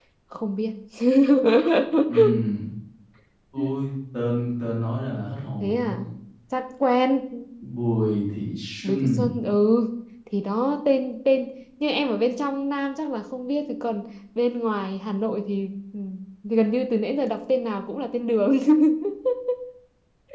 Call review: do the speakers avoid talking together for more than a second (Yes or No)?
Yes